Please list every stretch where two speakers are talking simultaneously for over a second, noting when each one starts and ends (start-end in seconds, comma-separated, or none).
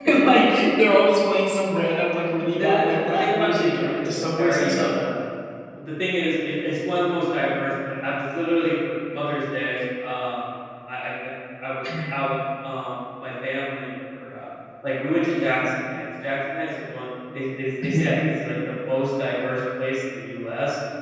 2.6-4.9